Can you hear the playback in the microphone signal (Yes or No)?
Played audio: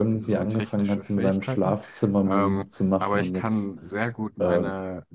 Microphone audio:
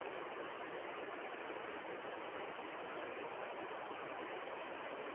No